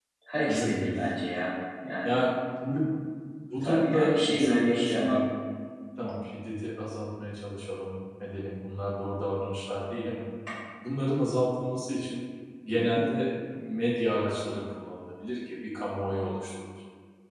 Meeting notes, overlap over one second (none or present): present